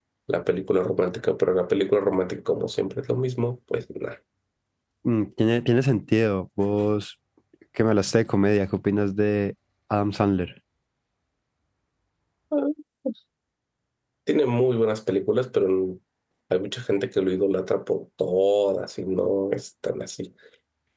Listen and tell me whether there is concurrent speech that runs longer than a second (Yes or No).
No